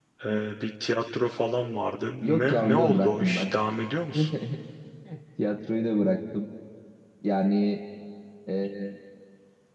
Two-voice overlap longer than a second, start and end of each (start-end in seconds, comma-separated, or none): 2.2-3.4